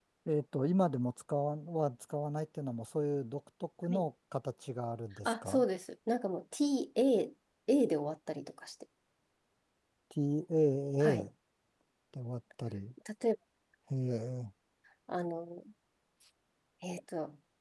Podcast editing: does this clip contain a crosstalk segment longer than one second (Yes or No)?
No